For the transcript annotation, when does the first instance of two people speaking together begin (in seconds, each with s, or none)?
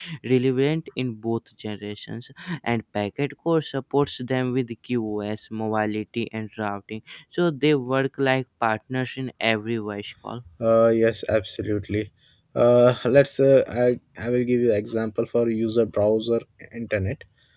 none